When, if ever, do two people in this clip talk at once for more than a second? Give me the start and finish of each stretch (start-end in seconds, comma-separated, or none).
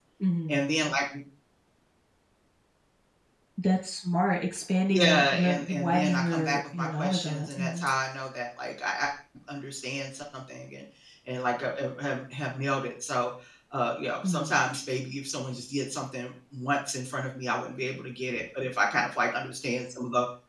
4.9-7.8